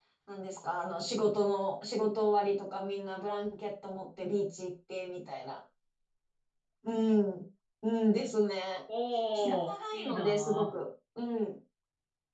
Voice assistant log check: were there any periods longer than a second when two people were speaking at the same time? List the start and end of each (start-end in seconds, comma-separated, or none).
9.4-10.6